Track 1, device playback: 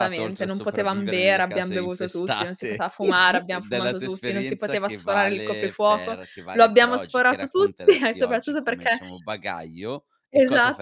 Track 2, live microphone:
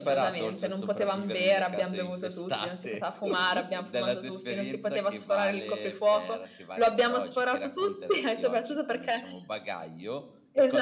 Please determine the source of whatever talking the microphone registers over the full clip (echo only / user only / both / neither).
echo only